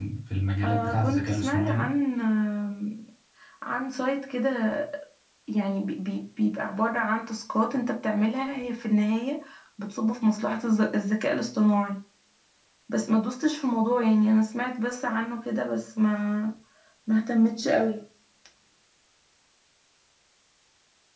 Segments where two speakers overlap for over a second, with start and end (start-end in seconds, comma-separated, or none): 0.6-1.9